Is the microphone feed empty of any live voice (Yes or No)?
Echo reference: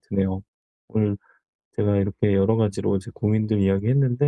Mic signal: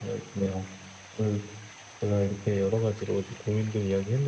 Yes